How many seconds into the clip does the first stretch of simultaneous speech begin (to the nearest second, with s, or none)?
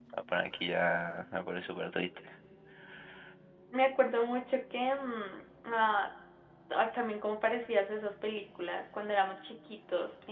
none